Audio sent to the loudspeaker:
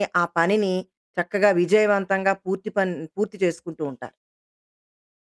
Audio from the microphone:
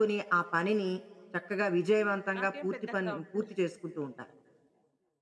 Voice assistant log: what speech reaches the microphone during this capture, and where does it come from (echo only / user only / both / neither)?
both